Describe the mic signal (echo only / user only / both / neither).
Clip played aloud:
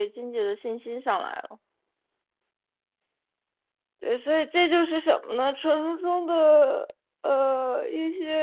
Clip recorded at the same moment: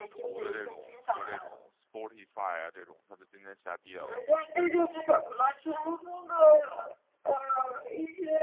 both